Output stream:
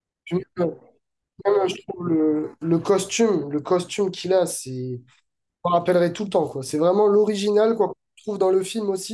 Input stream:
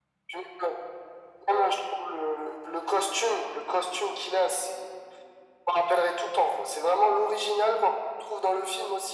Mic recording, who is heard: echo only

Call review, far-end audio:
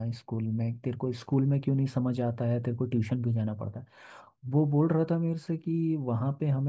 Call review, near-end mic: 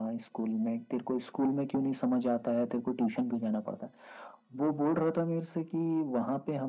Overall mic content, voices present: echo only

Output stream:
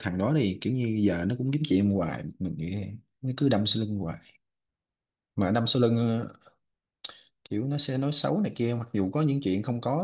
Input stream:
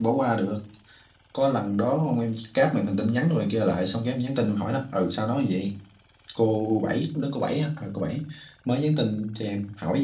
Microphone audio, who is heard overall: user only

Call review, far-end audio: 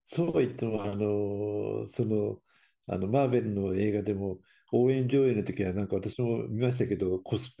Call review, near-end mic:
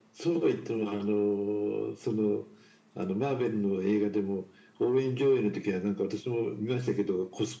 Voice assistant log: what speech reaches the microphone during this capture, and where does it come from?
echo only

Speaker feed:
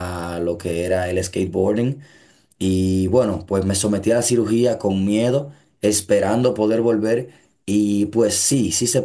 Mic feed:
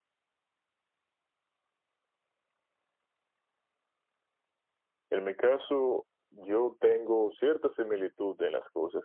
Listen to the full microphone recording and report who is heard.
user only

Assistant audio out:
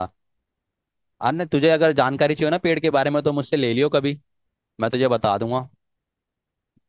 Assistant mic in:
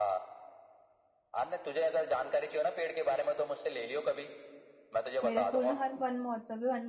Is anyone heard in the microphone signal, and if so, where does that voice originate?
both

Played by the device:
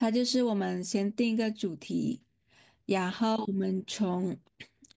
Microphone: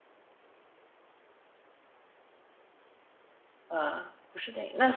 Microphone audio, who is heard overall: user only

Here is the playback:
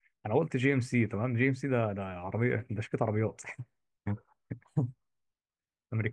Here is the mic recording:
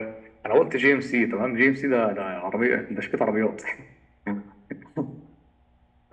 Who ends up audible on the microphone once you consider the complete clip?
echo only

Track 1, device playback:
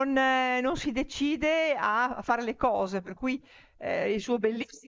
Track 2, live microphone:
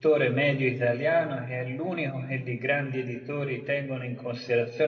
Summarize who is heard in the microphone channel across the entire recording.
user only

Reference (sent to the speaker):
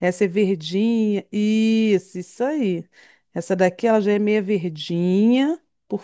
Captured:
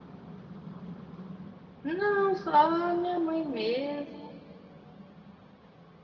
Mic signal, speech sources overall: user only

